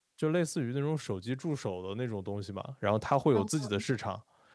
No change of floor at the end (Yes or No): Yes